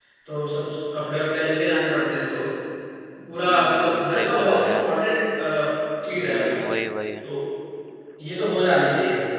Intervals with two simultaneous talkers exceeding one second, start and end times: 3.5-4.8

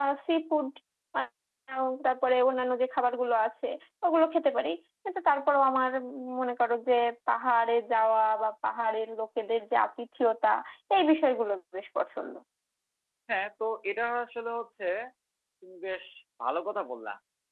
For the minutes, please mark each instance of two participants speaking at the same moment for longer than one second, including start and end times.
none

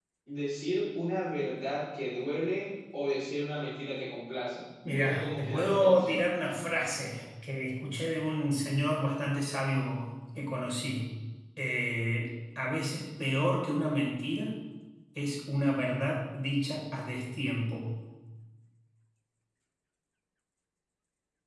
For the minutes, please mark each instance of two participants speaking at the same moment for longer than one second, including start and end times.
4.9-6.2

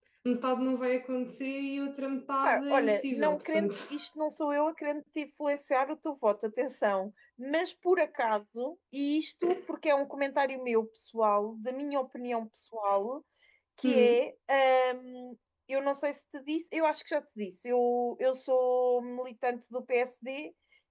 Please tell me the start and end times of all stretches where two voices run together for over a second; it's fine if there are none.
2.4-3.7

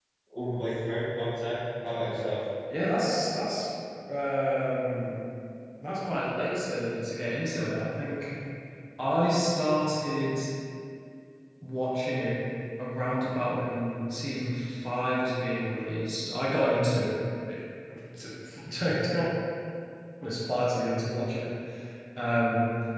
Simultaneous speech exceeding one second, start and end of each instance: none

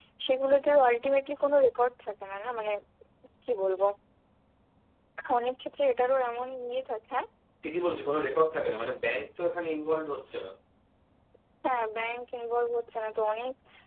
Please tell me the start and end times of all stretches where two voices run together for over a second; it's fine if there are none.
none

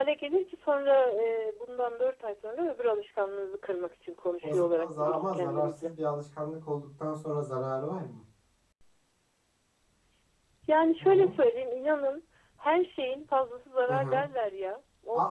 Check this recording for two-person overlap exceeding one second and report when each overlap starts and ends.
4.4-5.9

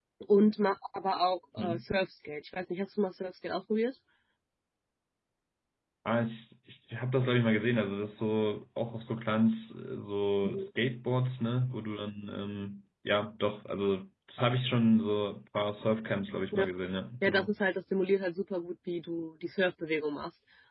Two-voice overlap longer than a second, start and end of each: none

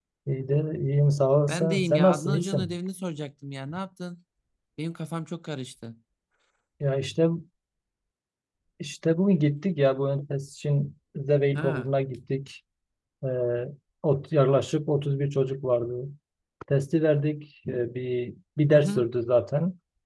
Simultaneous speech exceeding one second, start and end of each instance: 1.5-2.7

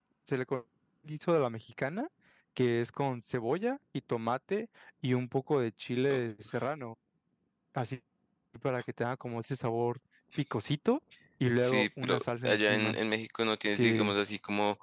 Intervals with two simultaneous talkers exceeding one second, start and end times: 11.6-13.0

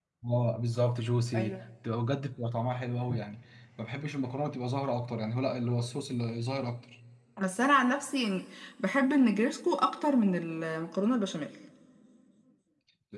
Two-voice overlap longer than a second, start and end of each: none

